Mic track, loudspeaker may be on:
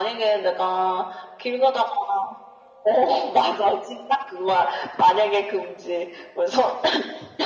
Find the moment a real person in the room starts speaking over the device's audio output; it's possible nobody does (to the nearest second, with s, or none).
none